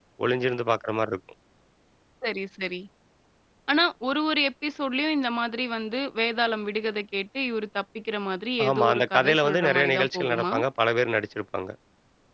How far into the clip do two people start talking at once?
8.6 s

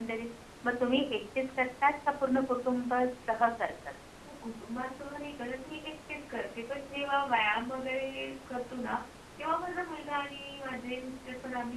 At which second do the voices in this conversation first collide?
none

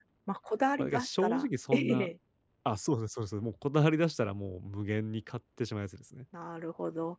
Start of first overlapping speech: 0.8 s

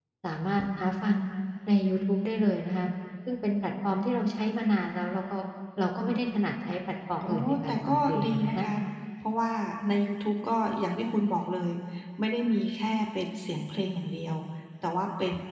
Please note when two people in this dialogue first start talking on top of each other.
7.3 s

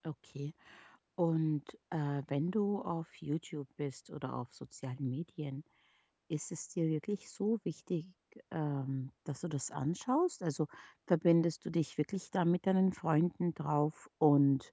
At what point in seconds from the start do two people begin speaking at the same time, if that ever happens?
none

